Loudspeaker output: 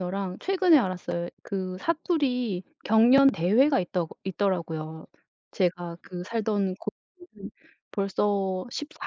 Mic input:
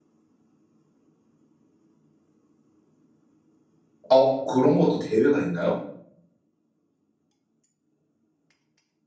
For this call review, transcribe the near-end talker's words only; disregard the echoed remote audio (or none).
어 그런 것도 대회가 있나요?